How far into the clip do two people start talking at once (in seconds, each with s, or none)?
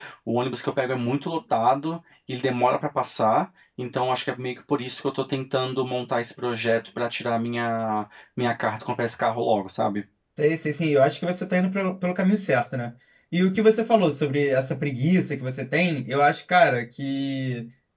none